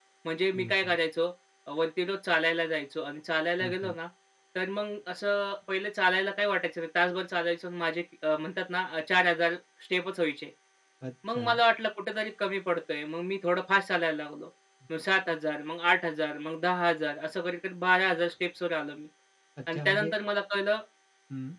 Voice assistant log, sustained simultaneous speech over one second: none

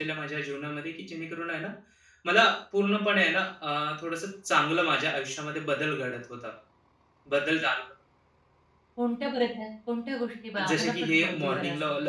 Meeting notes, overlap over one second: present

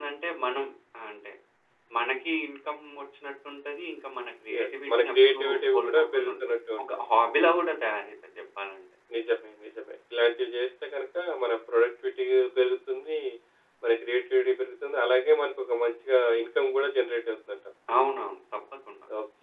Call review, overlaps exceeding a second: present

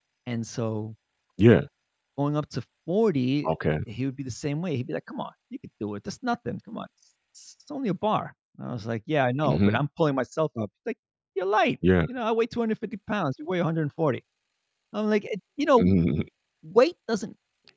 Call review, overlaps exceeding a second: none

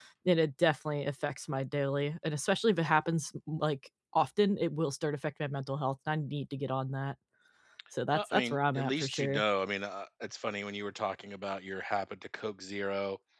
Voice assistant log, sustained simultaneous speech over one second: present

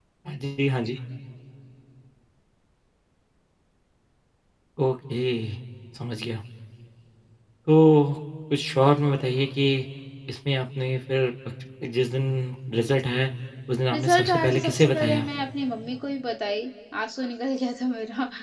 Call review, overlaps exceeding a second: present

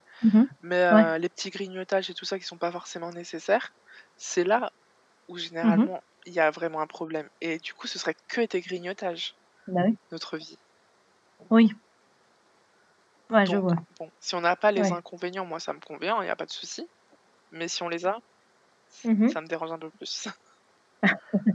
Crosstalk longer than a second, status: none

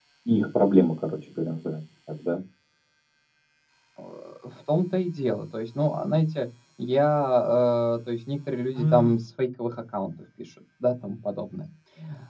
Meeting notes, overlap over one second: none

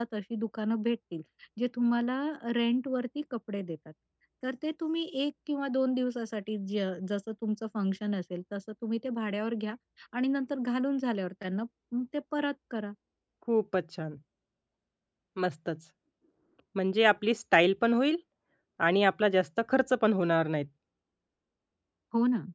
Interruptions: none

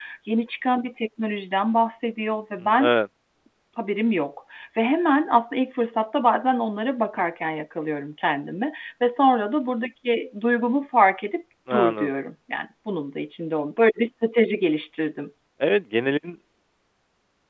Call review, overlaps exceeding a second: none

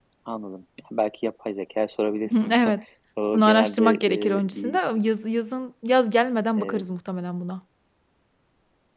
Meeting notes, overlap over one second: present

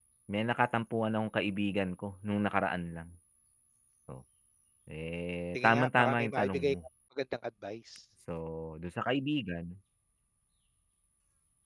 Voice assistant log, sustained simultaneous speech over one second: present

